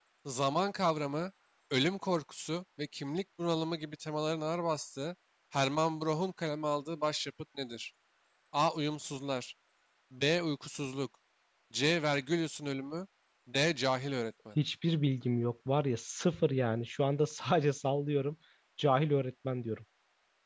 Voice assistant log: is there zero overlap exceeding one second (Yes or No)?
Yes